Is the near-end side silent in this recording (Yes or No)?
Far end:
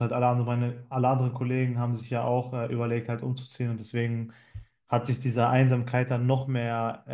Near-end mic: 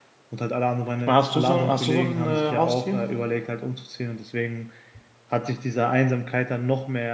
No